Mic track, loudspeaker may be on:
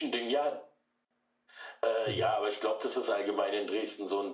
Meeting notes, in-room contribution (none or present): present